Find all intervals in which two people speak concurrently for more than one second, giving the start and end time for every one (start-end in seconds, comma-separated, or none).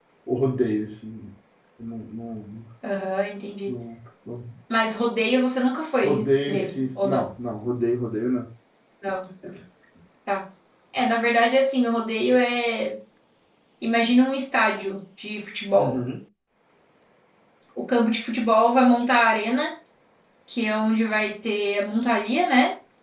6.0-7.3